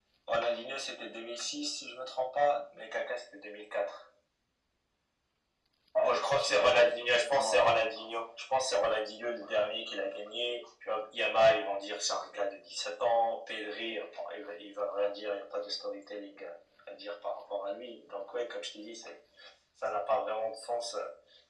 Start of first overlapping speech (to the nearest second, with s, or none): 6 s